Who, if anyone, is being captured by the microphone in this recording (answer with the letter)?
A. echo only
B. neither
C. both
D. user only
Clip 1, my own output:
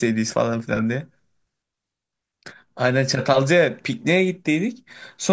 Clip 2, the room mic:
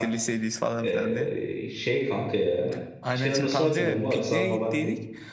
C